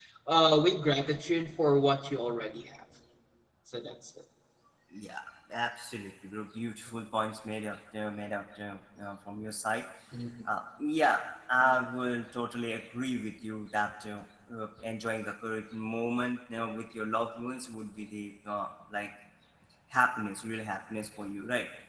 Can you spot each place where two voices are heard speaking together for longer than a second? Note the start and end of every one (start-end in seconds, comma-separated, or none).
none